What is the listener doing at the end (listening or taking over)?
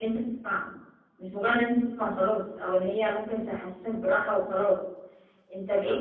listening